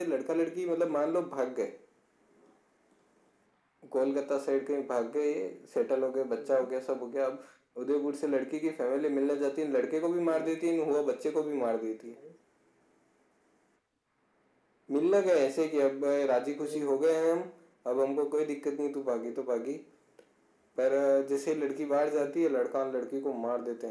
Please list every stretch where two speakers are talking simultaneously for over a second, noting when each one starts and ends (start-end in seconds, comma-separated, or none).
none